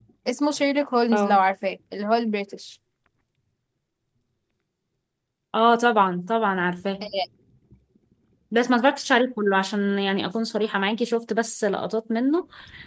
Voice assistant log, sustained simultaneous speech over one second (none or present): none